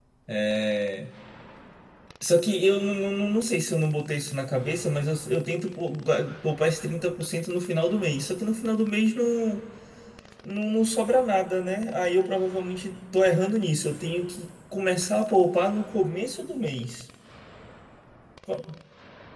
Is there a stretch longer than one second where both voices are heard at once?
No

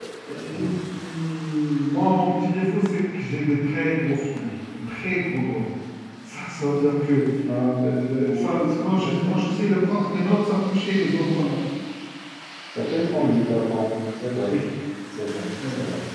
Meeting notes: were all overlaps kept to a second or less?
No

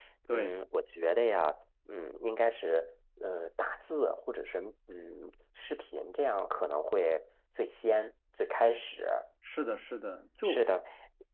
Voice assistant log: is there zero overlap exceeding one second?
Yes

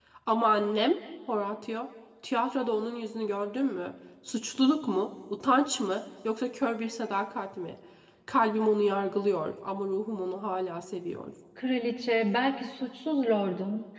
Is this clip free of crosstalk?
Yes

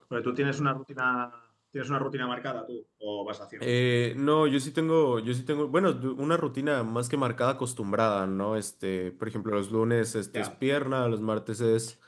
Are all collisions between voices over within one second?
Yes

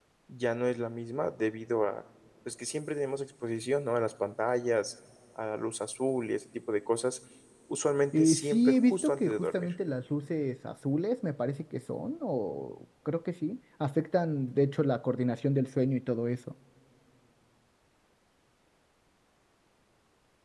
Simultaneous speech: Yes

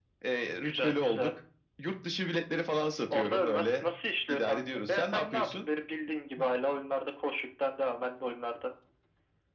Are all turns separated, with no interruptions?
No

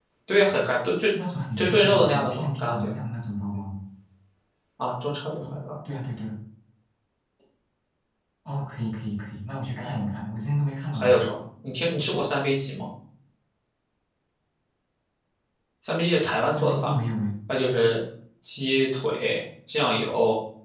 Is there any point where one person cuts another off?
Yes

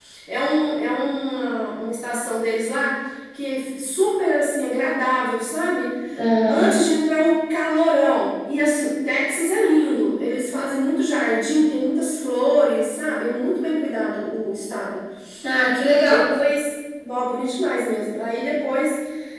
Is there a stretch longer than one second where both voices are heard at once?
No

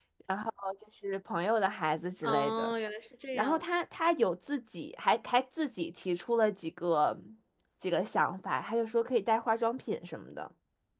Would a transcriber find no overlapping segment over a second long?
Yes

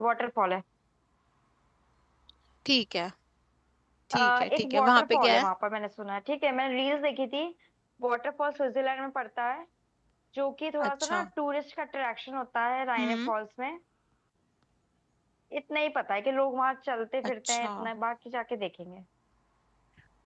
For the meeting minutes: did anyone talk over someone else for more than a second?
Yes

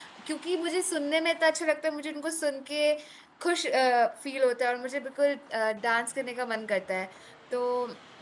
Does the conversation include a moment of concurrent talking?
No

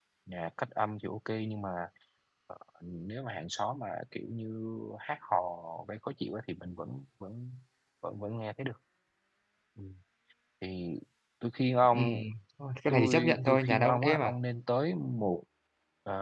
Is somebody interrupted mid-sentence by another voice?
Yes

